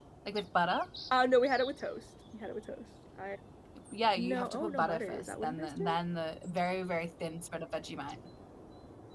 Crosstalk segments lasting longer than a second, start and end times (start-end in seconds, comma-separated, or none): 4.2-6.0